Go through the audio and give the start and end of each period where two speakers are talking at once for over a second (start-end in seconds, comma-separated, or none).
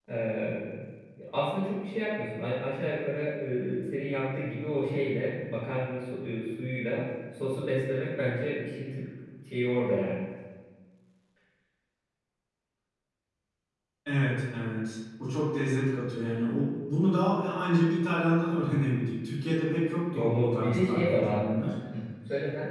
20.1-21.5